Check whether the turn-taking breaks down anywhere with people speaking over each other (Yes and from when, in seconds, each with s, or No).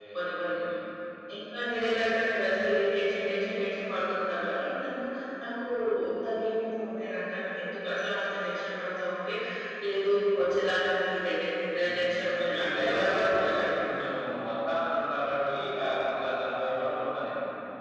Yes, from 11.8 s